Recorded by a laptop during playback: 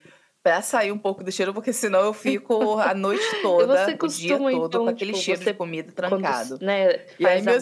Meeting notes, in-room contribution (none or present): none